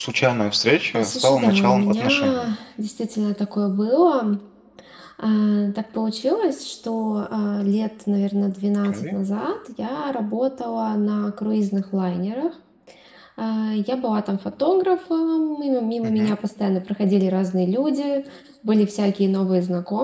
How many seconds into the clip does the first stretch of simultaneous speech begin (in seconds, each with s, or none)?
0.9 s